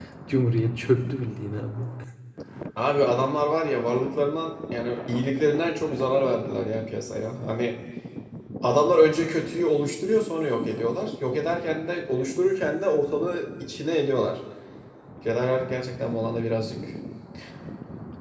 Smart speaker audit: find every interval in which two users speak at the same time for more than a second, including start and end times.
none

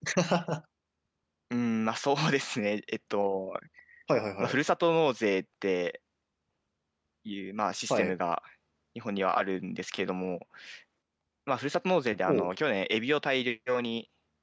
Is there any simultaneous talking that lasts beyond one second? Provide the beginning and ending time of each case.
none

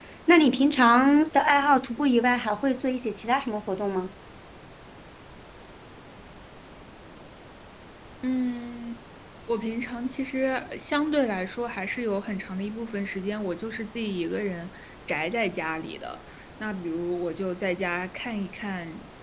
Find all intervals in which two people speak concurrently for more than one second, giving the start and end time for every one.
none

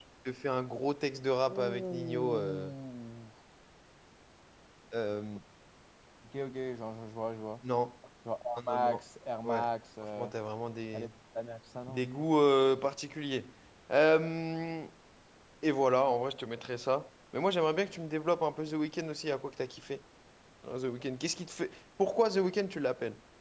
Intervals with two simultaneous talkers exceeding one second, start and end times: 1.5-2.7

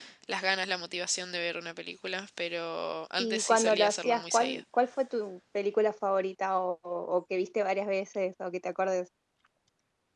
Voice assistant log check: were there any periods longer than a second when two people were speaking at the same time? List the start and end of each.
3.2-4.6

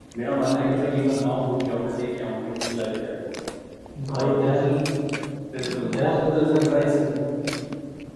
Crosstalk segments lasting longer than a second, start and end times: 5.6-6.9

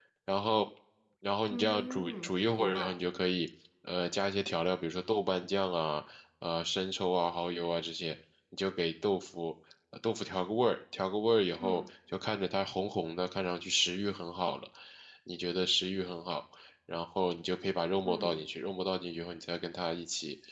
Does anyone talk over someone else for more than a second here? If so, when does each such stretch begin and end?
1.5-2.9

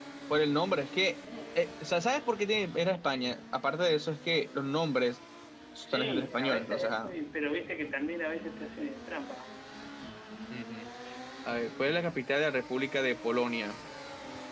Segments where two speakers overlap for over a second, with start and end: 5.8-7.1

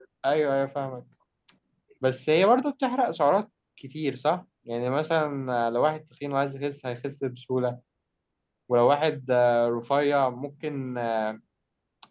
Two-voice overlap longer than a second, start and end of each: none

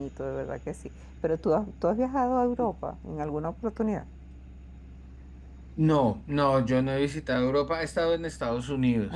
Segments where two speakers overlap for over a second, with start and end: none

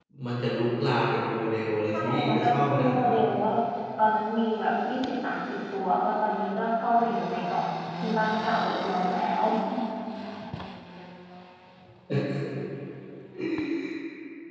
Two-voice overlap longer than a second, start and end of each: 1.9-3.2

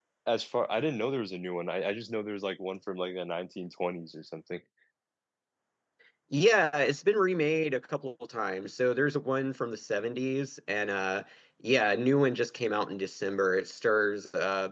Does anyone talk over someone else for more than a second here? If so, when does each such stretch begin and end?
none

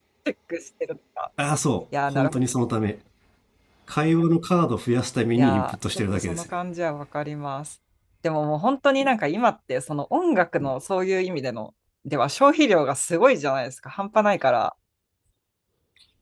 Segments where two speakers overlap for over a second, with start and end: 5.3-6.6

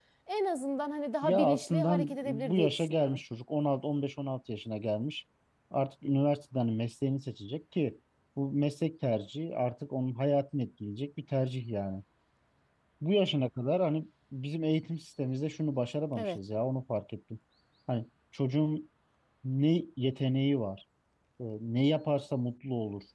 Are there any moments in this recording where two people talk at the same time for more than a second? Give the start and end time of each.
1.2-3.2

